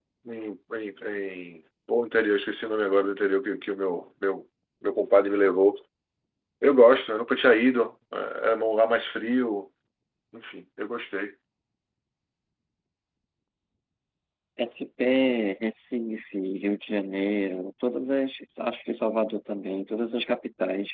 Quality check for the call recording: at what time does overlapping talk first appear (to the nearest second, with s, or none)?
none